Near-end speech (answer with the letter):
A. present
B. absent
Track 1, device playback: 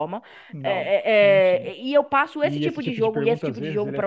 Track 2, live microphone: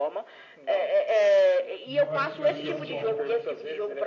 A